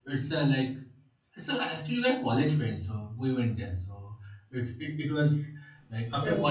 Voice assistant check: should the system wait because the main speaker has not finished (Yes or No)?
No